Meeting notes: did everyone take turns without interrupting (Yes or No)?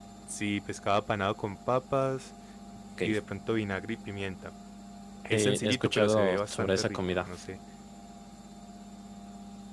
No